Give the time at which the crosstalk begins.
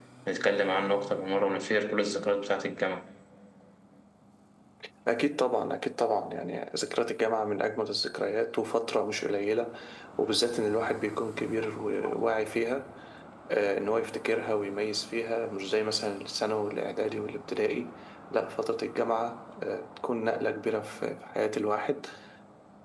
none

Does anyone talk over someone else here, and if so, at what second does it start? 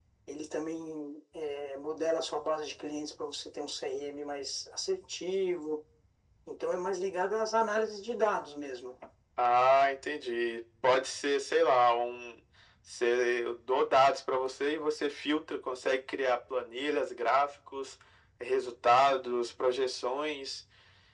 none

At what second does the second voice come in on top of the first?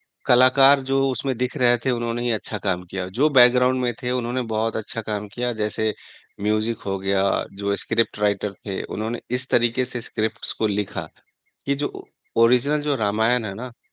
none

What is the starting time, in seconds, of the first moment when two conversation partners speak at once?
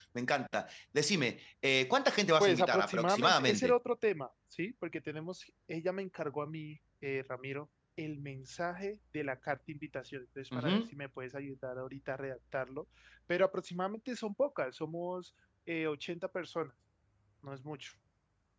2.4 s

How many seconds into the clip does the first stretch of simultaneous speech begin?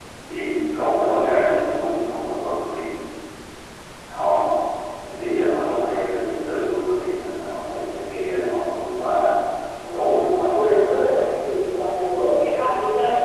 9.9 s

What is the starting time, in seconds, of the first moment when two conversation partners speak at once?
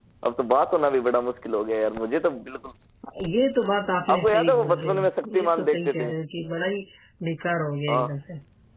4.1 s

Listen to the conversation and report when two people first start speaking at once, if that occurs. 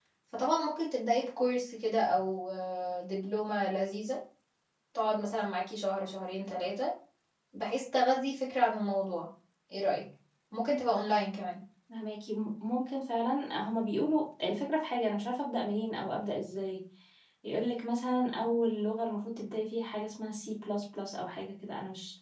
none

